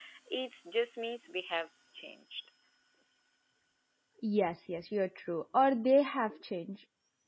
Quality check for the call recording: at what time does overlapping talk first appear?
none

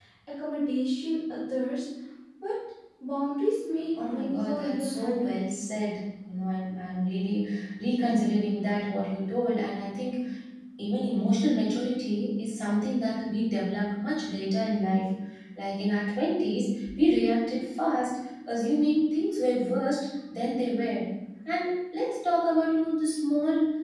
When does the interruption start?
4.0 s

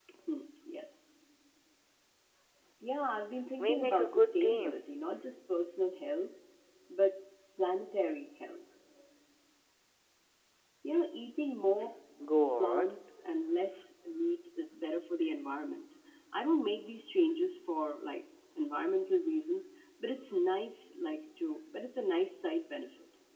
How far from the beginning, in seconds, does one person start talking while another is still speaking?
3.6 s

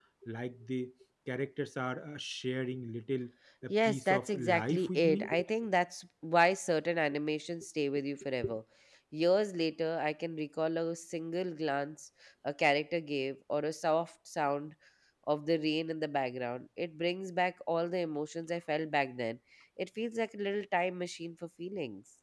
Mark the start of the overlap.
3.6 s

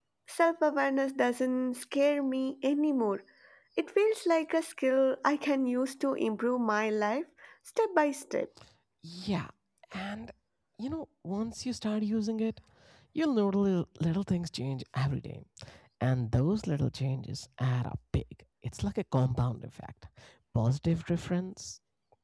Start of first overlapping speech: none

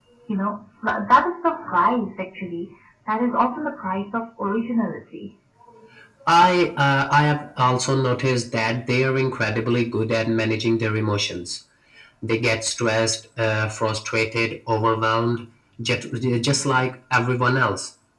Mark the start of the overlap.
none

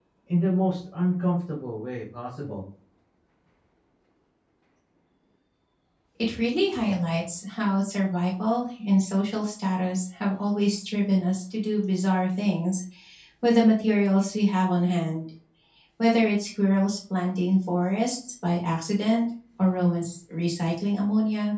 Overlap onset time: none

